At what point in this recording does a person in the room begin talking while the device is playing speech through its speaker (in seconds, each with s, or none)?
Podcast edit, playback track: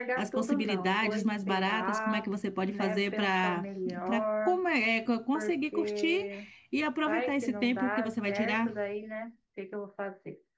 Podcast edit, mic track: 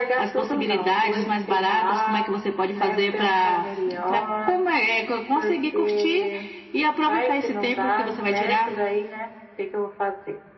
none